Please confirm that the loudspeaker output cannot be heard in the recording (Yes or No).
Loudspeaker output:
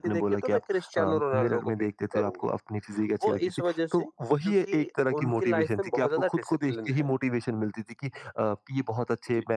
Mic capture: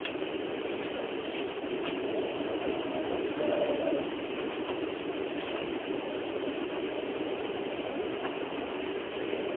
Yes